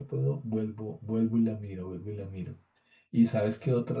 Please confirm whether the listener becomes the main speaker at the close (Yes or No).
No